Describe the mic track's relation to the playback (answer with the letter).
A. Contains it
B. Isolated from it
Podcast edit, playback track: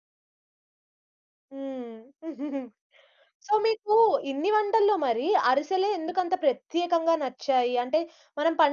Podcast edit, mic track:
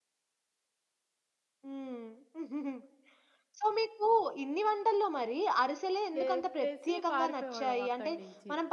A